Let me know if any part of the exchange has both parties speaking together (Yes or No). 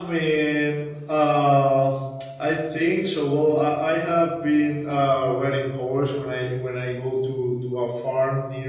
No